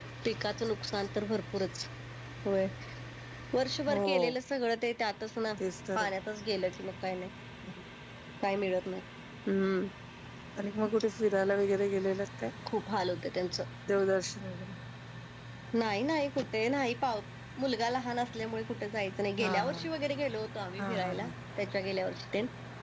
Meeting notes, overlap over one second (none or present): none